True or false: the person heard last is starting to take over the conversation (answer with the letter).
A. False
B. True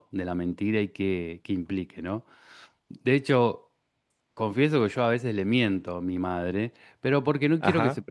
A